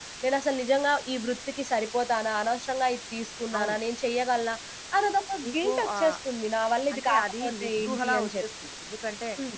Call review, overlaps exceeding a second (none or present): present